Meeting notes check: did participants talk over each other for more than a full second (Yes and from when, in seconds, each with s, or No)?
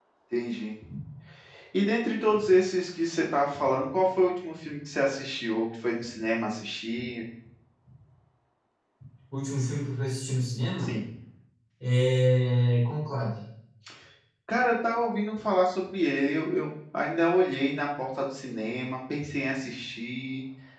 No